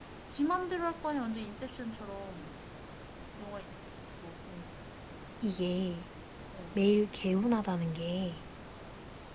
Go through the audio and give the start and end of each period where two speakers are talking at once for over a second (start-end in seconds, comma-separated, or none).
none